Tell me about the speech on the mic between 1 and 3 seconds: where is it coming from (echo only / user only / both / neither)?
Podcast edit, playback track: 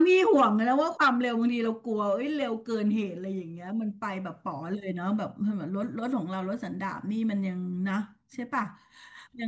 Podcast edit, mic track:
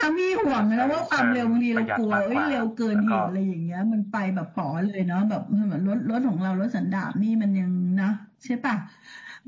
both